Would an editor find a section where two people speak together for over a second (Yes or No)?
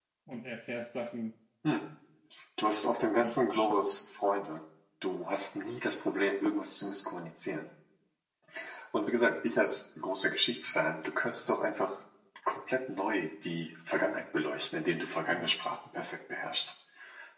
No